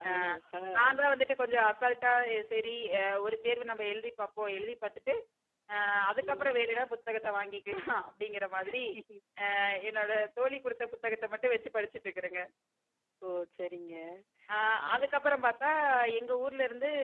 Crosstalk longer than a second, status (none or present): none